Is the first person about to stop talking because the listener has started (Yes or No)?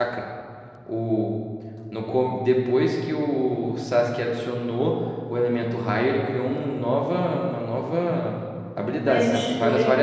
Yes